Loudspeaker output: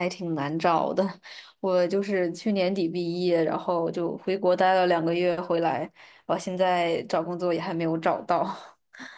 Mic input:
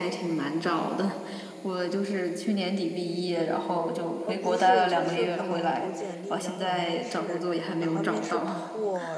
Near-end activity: present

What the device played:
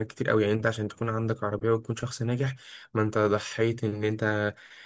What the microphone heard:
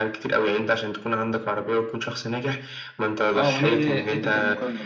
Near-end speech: present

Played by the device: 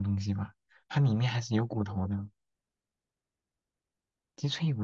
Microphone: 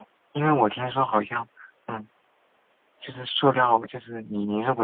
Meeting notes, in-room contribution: present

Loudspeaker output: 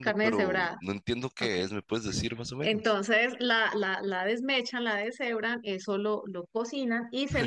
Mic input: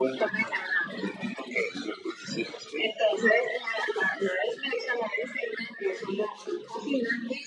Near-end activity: none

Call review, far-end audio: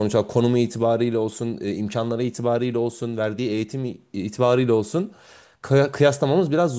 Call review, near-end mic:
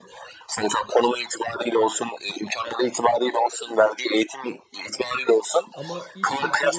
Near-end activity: present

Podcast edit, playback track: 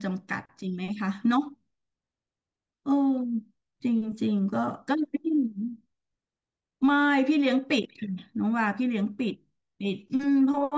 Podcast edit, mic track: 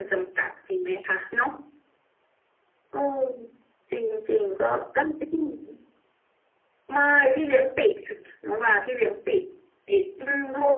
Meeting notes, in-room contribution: none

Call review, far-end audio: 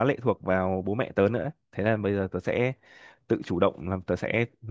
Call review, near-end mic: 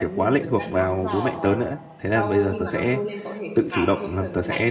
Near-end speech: present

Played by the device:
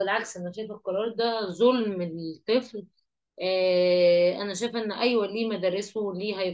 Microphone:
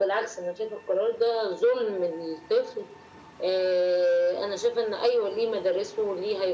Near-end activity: none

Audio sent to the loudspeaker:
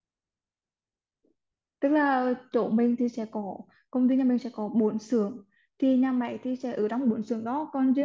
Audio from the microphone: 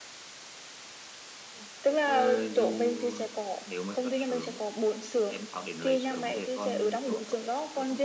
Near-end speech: present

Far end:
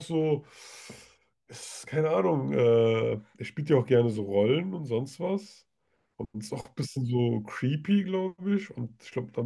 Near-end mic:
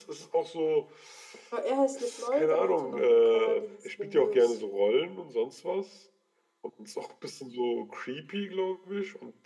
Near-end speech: present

